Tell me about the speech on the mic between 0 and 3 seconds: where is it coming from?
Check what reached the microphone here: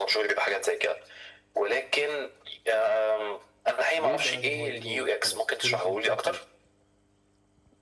echo only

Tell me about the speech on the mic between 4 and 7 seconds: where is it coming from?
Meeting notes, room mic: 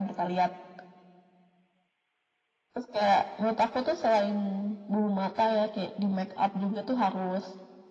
echo only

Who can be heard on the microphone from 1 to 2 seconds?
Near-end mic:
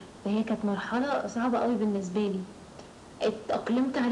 echo only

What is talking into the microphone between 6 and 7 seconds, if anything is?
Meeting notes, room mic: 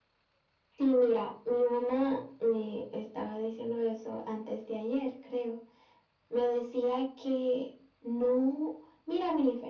echo only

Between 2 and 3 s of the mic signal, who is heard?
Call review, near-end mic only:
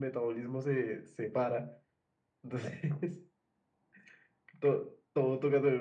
echo only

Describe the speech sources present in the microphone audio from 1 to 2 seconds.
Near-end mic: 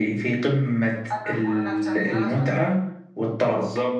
echo only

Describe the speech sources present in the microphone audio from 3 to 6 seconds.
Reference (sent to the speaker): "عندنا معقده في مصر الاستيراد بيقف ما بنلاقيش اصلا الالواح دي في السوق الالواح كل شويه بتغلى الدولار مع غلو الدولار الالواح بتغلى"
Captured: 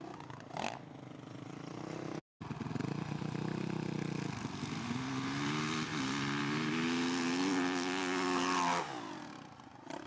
neither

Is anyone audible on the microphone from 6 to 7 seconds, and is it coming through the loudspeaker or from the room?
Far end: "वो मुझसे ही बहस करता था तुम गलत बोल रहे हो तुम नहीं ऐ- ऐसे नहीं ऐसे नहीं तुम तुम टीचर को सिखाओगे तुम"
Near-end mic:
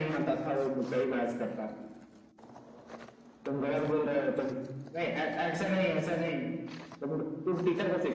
echo only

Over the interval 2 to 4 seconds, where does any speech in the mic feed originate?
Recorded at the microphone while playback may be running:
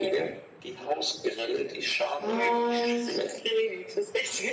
both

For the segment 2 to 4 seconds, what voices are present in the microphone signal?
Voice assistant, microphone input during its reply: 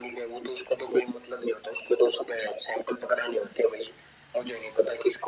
echo only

